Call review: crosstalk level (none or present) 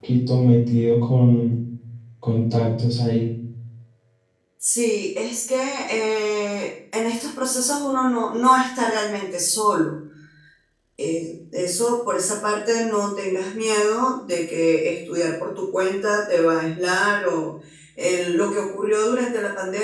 none